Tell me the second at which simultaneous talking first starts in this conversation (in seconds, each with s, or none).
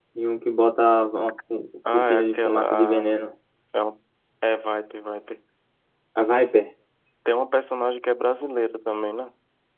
1.9 s